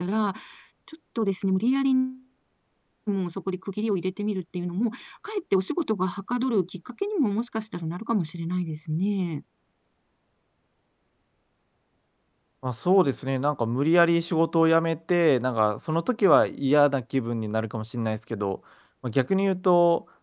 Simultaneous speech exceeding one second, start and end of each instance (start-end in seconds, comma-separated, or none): none